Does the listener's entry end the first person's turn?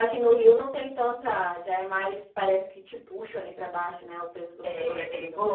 Yes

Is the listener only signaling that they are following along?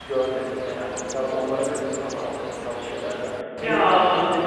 Yes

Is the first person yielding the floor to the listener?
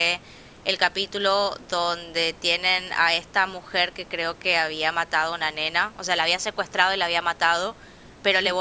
No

